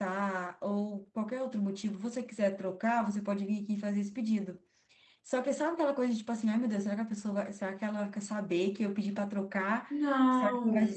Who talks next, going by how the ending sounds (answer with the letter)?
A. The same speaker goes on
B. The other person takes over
A